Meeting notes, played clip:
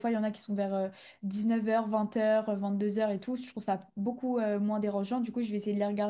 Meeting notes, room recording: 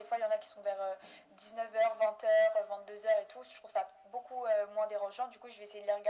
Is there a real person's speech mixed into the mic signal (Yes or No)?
No